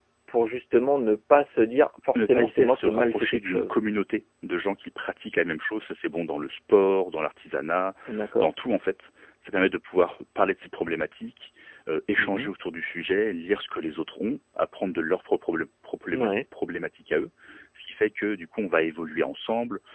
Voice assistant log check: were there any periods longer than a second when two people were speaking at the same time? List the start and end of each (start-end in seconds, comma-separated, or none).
2.1-3.8